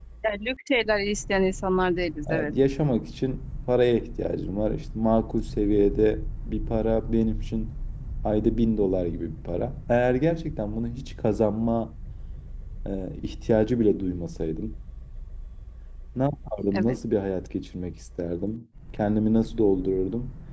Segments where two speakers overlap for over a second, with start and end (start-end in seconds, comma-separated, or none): none